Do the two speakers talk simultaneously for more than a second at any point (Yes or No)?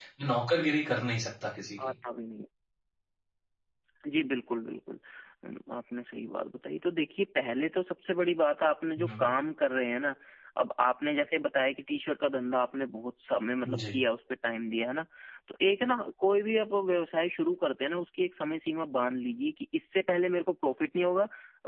No